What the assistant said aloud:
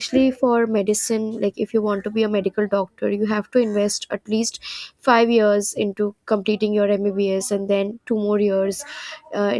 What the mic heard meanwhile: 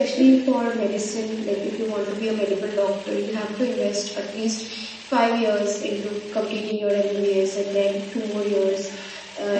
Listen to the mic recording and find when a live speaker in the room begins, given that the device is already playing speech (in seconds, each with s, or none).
none